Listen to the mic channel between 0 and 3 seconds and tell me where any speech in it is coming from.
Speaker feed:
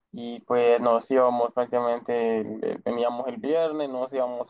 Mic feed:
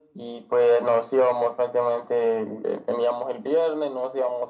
echo only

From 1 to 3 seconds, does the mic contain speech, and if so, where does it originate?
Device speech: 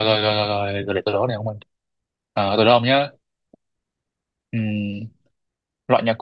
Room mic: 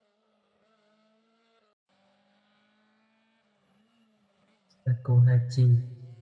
neither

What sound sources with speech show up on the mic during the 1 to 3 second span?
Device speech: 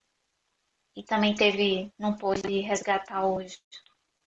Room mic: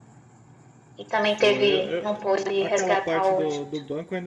both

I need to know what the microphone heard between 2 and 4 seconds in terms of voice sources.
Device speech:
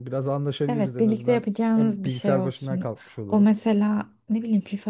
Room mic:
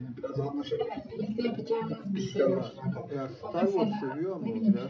both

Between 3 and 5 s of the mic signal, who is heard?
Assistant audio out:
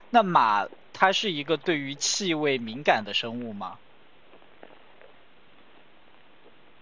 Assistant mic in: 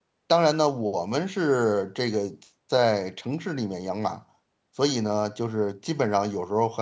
user only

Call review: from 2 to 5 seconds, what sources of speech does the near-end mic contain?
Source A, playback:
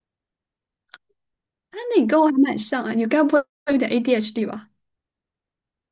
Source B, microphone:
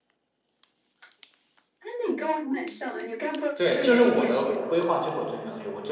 both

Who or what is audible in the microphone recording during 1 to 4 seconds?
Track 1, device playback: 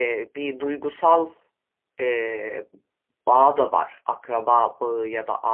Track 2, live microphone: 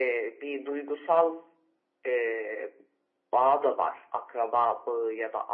echo only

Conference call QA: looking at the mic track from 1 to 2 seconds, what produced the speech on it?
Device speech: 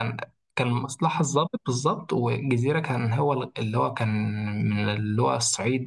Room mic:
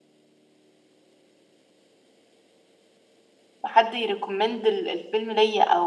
neither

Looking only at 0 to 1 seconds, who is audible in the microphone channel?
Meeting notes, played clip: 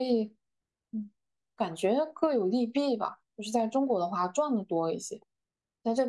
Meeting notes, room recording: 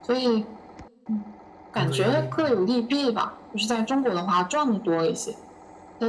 echo only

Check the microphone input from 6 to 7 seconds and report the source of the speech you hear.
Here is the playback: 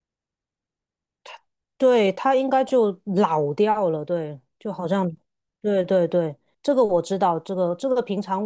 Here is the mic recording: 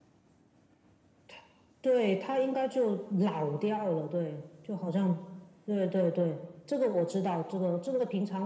echo only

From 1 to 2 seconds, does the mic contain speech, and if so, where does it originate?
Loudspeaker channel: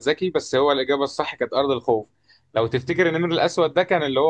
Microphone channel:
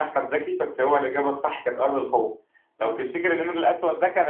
echo only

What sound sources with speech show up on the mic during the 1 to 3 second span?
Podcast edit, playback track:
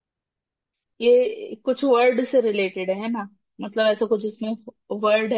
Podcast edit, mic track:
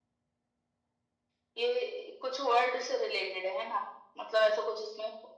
echo only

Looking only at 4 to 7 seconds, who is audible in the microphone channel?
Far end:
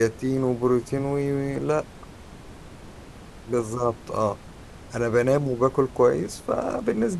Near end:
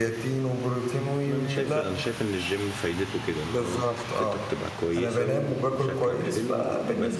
both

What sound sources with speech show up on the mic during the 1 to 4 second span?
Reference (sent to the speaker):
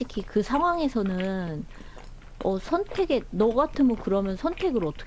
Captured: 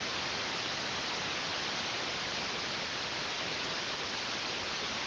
neither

